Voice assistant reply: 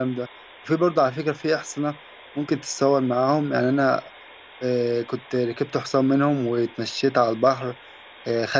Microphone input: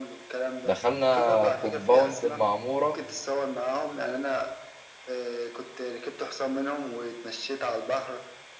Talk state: both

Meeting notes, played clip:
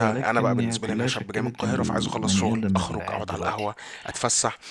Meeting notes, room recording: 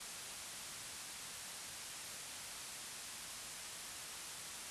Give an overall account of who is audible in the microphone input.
neither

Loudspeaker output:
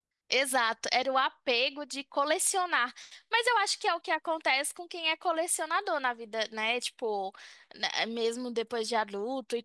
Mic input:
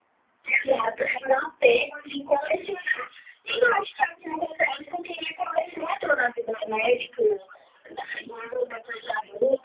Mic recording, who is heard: echo only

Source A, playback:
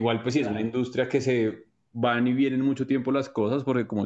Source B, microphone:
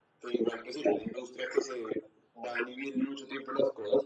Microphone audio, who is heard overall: echo only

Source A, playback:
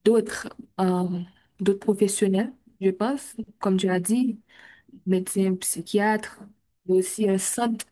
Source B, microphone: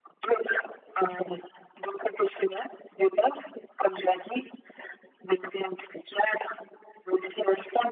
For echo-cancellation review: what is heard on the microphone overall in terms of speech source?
echo only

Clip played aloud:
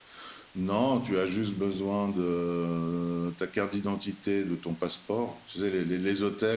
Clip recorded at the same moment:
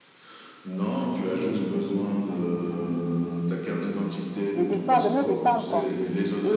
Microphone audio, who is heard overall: both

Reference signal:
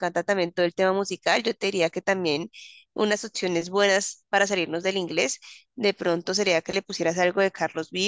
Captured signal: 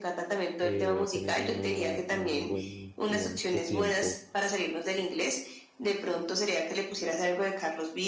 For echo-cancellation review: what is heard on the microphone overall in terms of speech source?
both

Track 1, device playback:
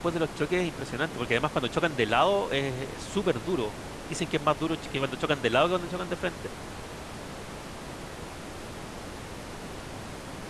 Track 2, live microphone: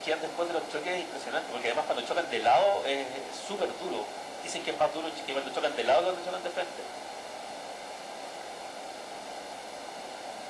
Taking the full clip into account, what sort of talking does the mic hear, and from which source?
echo only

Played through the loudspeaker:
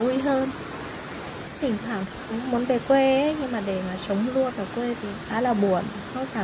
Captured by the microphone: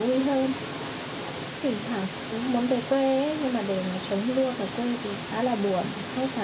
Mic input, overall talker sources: echo only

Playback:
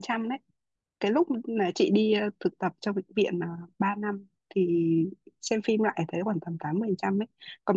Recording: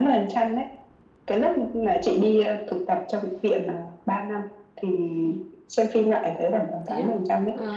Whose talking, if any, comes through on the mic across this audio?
both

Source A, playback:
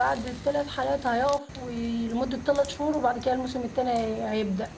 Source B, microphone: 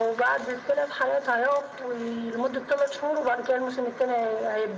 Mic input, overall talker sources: echo only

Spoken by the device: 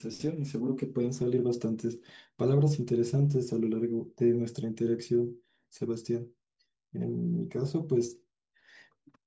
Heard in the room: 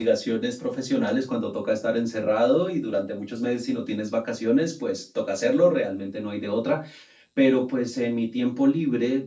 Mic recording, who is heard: user only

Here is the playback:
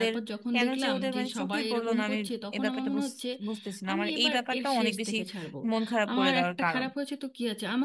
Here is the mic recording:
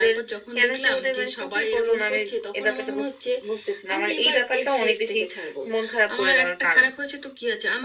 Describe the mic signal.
echo only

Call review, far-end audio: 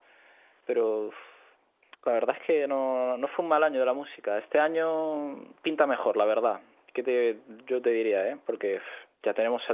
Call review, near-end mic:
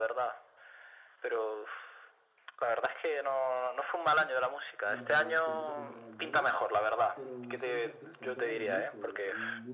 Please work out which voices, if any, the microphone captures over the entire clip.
both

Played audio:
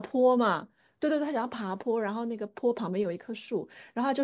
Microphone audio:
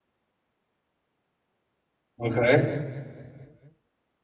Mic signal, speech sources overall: user only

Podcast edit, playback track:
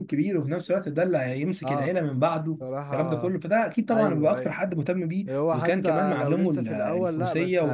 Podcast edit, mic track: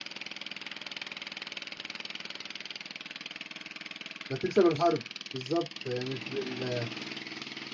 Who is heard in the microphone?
user only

